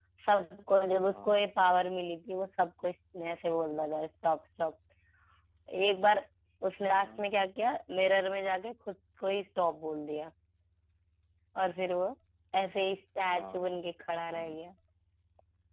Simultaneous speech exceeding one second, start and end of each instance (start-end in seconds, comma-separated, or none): none